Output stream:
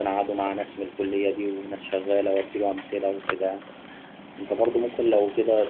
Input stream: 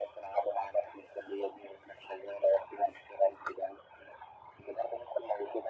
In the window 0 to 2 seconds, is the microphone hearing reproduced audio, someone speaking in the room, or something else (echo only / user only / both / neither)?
echo only